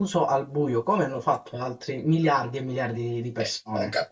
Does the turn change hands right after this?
Yes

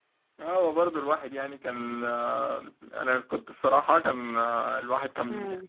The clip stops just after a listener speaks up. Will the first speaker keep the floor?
Yes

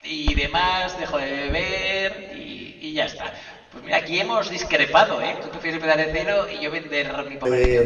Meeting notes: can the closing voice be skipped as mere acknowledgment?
No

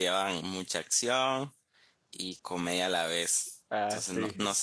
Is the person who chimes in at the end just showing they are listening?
Yes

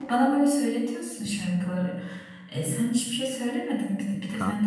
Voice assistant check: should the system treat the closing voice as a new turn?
Yes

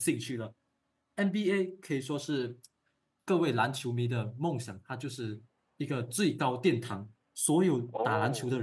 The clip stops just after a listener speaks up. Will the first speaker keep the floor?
Yes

